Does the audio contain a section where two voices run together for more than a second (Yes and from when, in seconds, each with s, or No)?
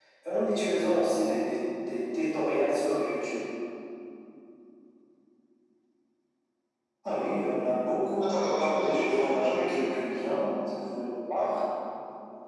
Yes, from 8.2 s